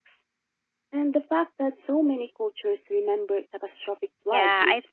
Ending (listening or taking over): taking over